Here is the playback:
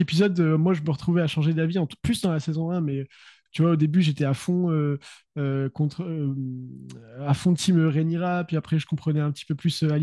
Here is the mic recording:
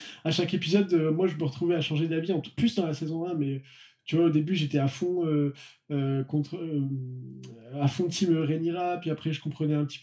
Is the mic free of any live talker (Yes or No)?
Yes